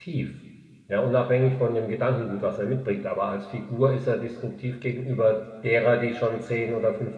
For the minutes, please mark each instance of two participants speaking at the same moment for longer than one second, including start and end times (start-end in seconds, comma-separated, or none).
none